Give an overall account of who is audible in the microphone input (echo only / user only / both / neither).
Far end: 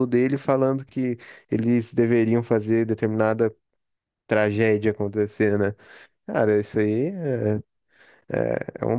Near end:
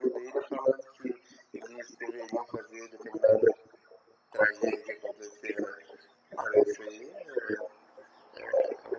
echo only